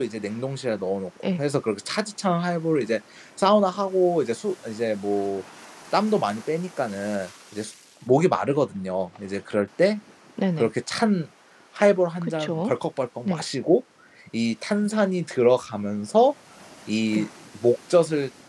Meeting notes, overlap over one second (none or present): none